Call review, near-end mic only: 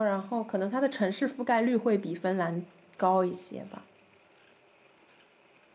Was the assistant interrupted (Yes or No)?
Yes